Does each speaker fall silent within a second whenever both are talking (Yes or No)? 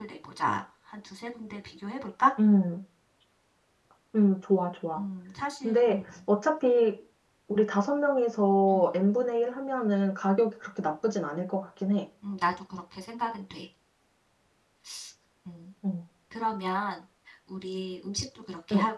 Yes